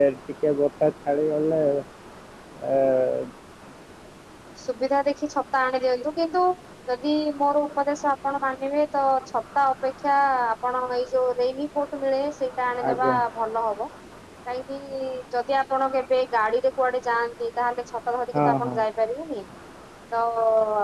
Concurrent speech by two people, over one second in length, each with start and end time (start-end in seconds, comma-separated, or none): none